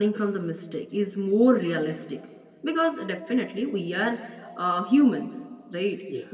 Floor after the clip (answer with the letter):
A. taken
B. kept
B